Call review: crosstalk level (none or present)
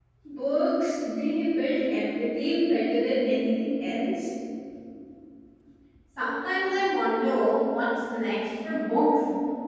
none